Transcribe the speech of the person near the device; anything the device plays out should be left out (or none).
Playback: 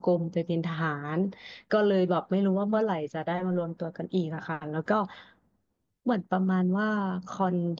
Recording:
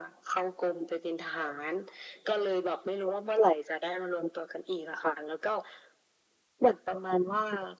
none